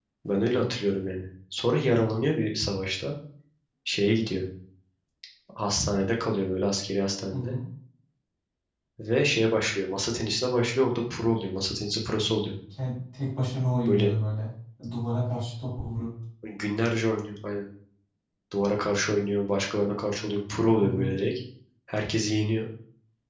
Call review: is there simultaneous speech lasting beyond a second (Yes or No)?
No